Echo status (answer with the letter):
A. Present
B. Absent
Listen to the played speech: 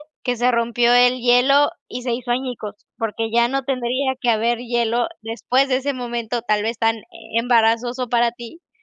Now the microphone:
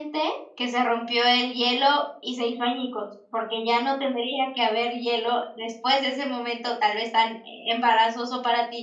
A